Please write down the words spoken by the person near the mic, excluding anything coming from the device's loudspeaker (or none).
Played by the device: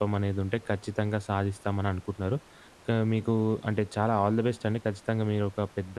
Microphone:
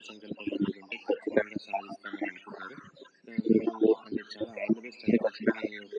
none